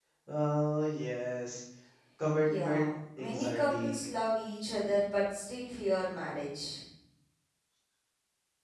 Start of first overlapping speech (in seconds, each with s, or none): 2.4 s